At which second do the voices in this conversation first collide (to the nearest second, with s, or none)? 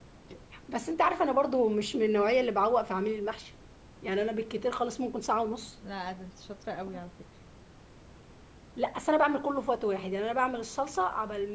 none